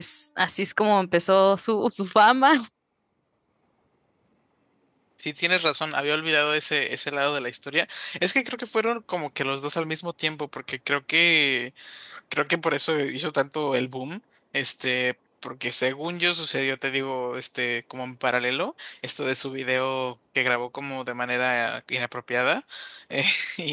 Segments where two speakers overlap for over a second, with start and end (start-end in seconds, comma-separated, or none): none